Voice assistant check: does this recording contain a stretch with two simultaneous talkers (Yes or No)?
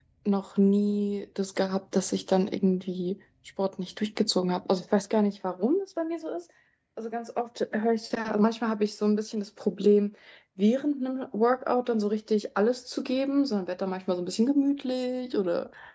No